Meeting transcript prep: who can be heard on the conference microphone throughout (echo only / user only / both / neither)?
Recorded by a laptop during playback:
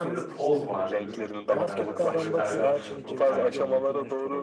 both